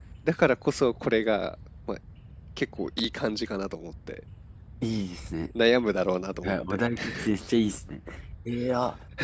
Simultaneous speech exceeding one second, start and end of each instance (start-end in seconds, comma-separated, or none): none